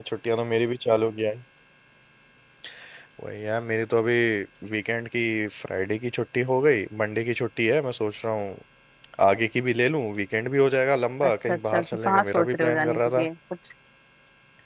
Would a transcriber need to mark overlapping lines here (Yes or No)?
Yes